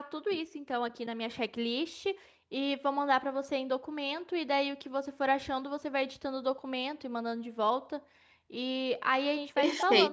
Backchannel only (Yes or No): No